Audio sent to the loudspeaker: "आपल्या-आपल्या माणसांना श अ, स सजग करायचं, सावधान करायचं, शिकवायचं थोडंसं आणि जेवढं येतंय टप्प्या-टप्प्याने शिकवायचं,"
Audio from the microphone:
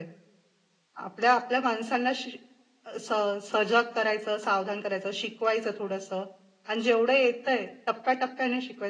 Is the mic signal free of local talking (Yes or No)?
Yes